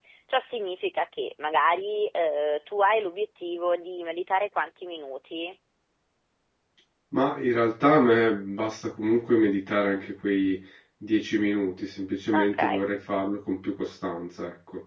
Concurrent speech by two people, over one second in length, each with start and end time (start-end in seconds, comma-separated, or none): none